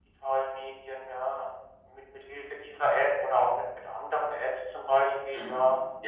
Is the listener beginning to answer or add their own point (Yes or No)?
No